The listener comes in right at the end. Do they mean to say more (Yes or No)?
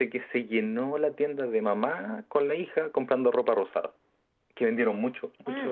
Yes